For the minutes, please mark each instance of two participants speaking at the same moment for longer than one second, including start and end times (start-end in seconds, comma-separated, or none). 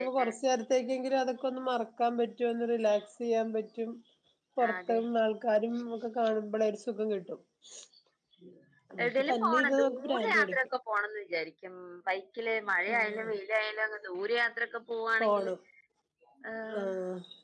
9.0-10.6